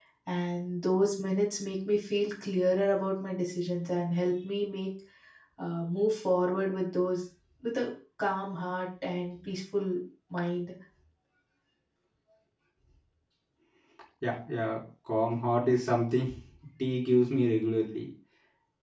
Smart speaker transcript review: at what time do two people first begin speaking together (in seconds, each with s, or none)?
none